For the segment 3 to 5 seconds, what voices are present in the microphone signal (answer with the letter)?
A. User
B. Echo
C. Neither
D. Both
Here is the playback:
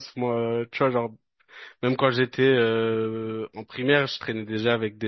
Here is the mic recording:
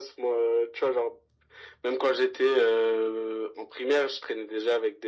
B